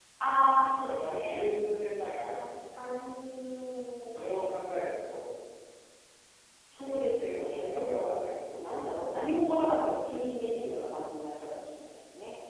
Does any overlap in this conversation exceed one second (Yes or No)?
Yes